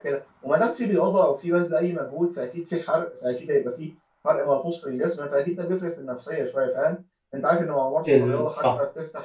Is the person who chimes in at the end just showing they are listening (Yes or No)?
Yes